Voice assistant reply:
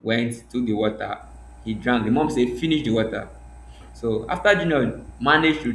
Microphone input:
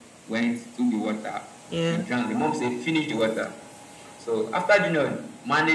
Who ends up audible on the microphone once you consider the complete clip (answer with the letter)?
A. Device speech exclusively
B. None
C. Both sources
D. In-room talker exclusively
C